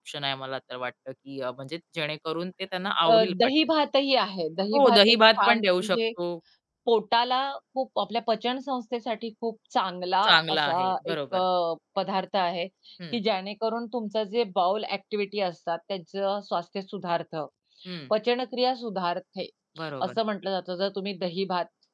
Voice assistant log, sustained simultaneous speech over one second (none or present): present